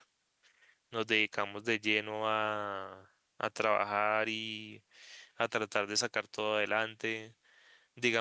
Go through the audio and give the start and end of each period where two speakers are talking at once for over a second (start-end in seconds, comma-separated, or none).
none